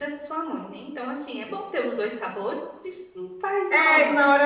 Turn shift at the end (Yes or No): Yes